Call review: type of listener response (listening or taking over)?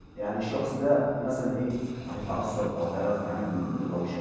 taking over